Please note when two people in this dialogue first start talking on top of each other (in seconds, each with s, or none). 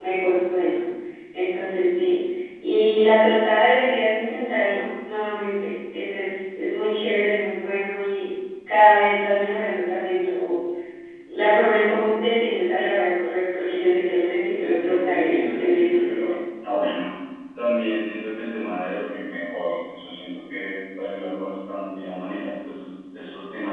14.5 s